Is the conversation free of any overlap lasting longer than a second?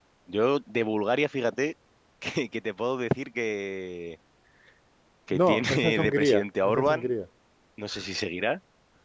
No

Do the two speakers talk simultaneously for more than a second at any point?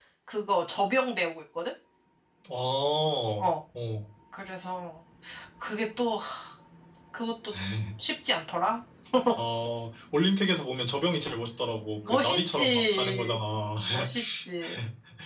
Yes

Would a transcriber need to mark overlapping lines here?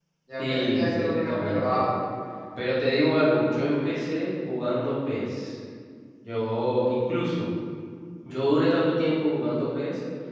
Yes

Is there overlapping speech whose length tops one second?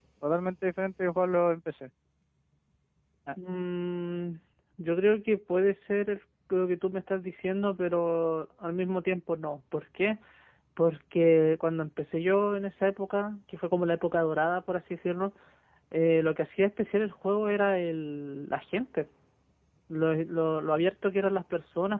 No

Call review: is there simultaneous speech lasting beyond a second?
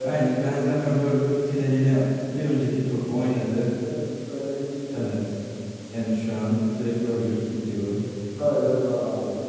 No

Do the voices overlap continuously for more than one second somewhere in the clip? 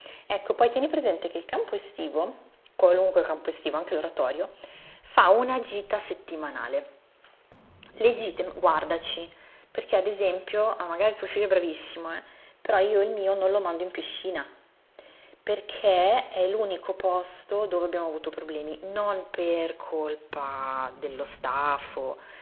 No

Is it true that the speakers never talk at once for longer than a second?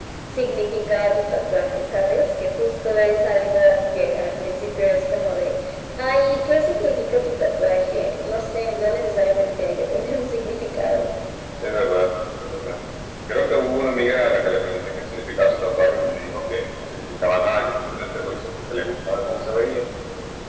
Yes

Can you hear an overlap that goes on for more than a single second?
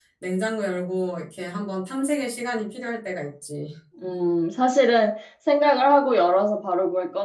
No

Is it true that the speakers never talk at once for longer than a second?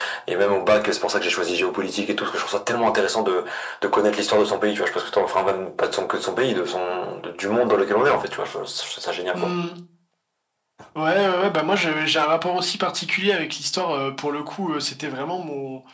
Yes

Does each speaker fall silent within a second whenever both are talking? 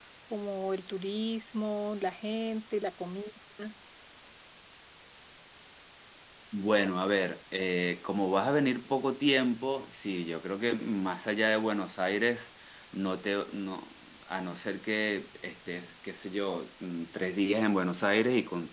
Yes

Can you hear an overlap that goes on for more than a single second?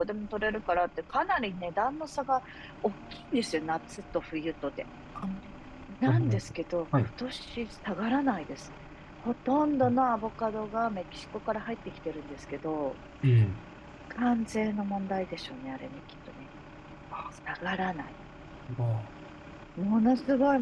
No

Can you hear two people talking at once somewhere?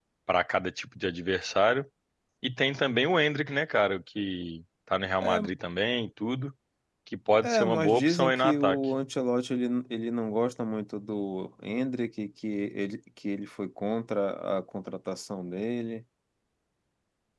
Yes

